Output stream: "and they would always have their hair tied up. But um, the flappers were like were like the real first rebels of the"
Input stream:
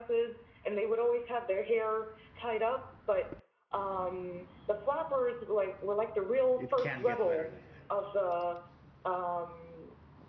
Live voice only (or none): It can't get better than that.